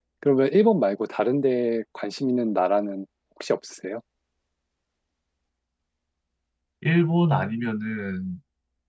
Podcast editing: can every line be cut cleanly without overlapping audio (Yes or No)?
Yes